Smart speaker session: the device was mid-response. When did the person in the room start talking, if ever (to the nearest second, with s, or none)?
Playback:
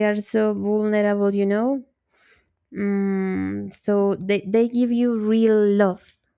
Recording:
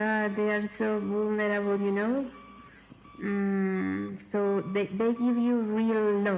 none